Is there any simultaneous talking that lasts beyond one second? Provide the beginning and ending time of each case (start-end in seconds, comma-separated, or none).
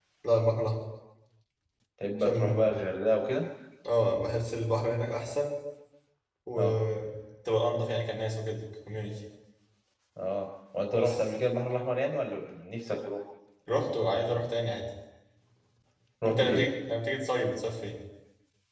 none